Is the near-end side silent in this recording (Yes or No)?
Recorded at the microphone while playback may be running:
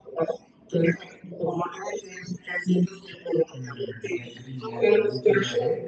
No